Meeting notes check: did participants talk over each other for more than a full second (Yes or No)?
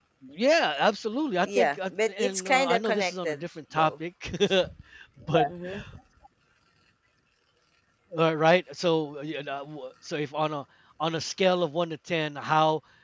Yes